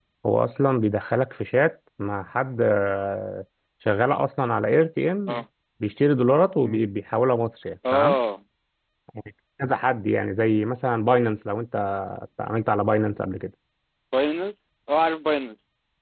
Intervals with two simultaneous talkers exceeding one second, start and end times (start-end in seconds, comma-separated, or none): none